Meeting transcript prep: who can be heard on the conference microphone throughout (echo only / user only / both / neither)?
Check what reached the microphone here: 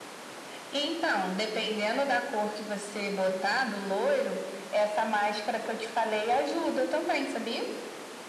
echo only